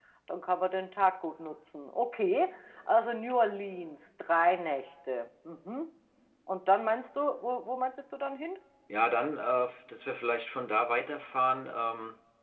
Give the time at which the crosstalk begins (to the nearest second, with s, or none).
none